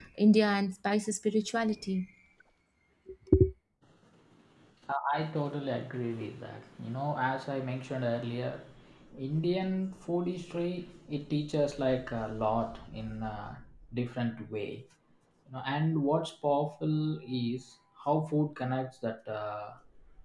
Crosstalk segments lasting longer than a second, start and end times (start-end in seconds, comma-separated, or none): none